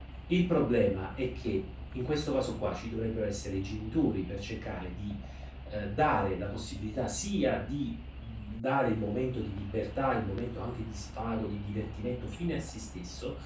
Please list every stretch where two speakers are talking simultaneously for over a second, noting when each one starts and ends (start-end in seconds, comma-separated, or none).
none